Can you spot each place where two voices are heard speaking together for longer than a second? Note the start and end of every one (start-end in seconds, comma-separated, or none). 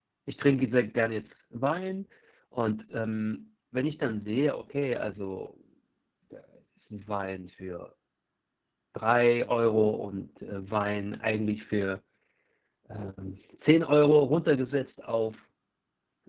none